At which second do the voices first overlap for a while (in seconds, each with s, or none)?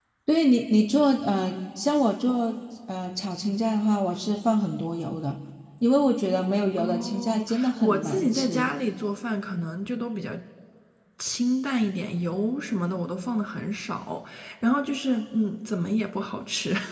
6.8 s